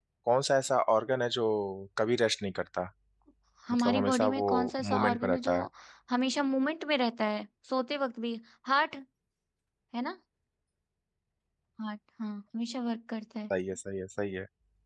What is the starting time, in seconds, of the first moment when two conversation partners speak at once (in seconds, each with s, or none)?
3.7 s